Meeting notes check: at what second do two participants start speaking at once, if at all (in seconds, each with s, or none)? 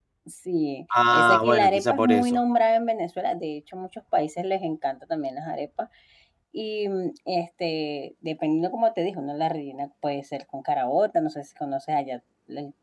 1.1 s